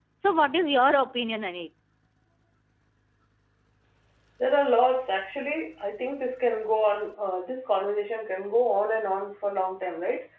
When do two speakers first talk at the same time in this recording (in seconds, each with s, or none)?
none